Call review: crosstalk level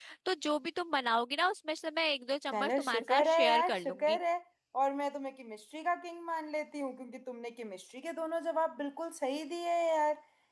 present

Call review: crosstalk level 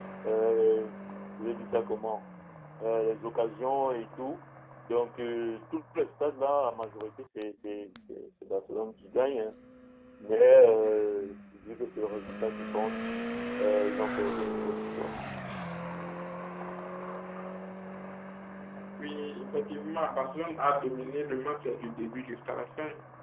none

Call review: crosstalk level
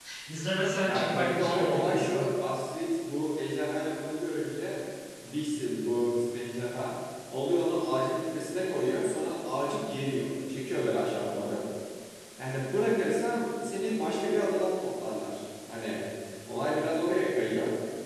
present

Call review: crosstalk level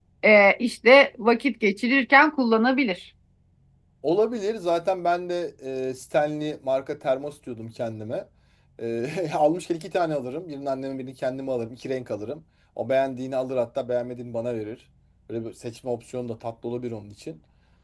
none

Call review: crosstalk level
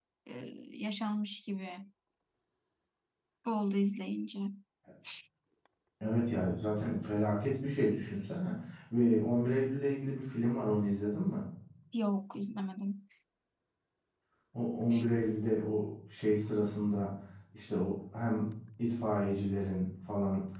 none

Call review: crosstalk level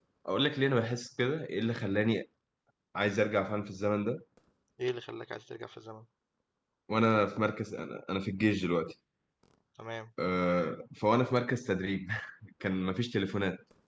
none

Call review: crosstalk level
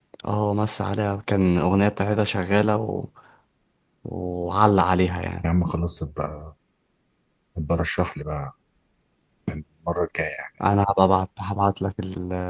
none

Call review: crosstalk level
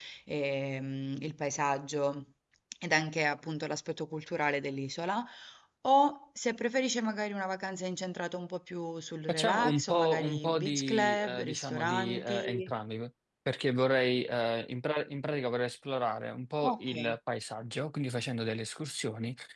present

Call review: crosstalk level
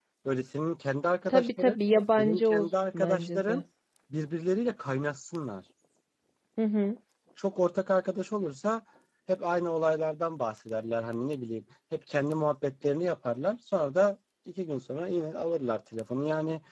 present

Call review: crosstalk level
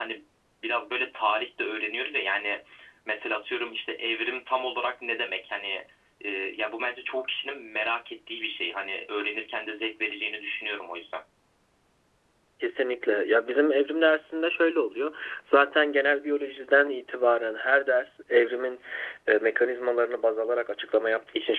none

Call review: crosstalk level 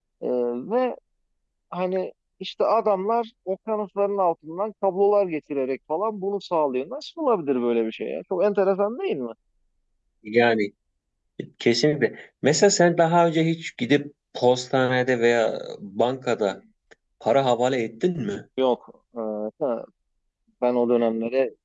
none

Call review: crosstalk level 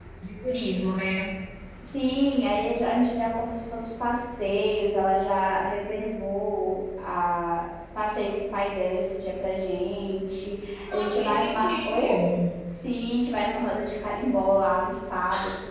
present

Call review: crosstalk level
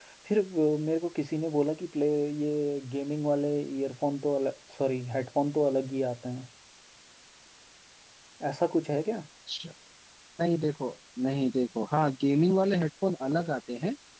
none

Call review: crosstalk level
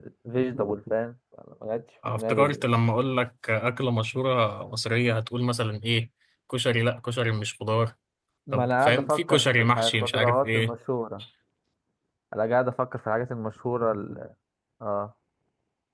present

